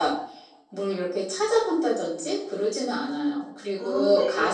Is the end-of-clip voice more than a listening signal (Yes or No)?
No